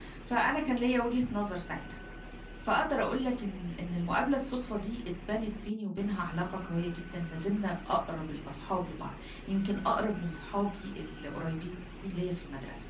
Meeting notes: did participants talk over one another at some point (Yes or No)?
No